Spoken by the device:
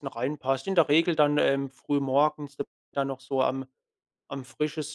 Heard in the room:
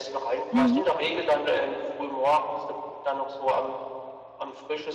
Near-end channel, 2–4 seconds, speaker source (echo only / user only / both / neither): echo only